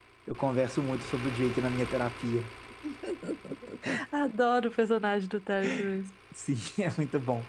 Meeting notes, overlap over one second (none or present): none